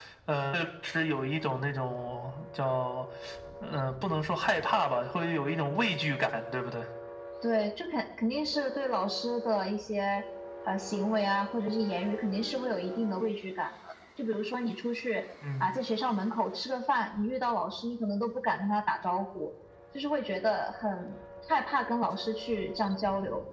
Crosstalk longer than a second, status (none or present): none